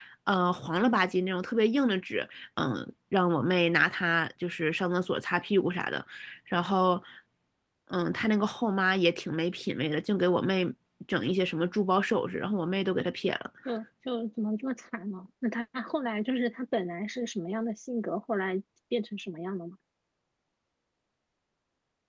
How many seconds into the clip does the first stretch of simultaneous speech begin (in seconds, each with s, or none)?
none